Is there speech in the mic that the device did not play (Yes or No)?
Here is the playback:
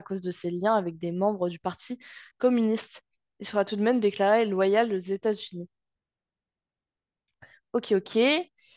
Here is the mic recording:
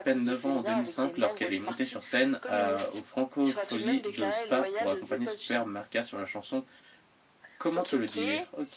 Yes